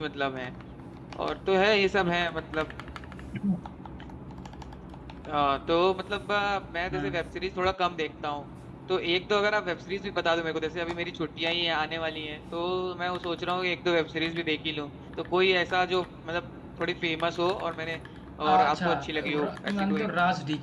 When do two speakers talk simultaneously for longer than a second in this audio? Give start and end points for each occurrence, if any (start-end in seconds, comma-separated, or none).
18.5-20.1